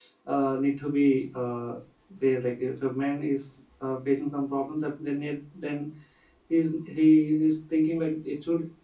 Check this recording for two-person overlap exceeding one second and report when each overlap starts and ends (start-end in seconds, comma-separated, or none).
none